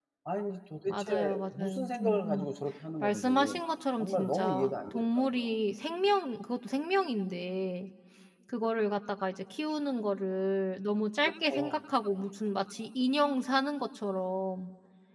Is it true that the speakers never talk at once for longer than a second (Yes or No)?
No